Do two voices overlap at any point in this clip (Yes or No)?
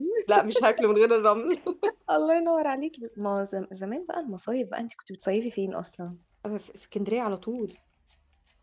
No